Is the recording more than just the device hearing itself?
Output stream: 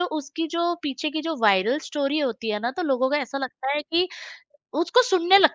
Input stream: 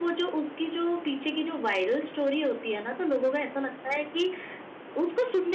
No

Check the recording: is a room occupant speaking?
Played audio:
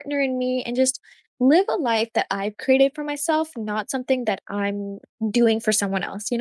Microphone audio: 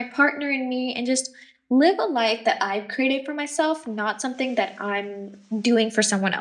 No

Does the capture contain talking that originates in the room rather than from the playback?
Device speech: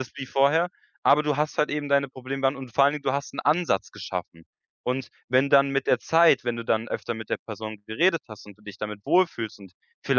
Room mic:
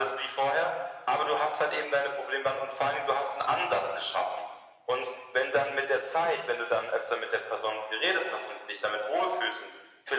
No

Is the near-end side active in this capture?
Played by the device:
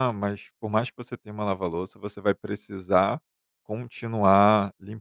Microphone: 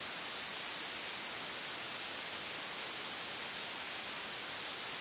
No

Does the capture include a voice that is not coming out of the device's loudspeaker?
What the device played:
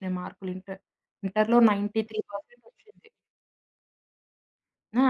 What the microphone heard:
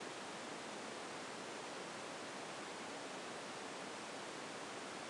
No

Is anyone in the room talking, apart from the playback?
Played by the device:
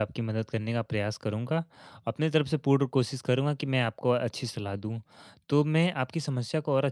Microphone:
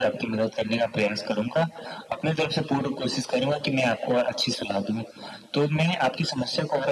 No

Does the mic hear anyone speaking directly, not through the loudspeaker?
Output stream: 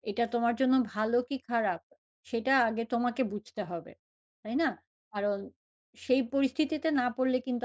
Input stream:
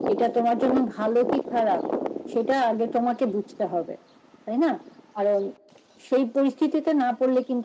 No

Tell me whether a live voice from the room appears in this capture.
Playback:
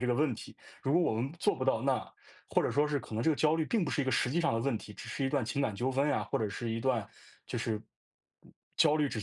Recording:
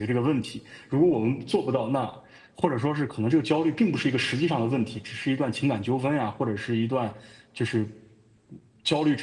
No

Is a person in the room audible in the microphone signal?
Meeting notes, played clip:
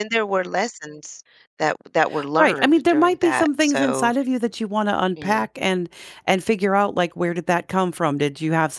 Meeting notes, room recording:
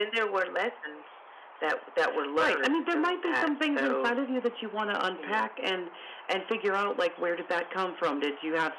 No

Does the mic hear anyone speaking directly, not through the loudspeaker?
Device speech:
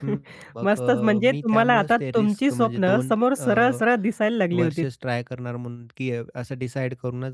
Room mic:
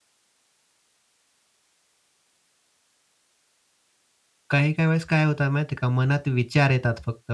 Yes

